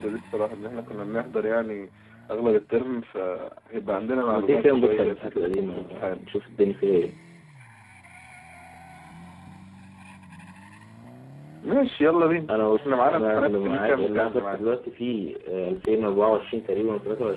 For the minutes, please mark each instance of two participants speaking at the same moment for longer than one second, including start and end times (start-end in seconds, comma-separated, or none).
4.3-6.2, 12.7-14.6